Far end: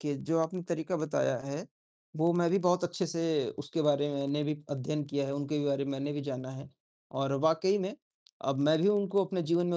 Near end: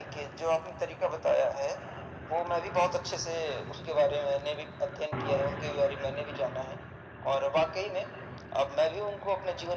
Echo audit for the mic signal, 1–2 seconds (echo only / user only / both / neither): echo only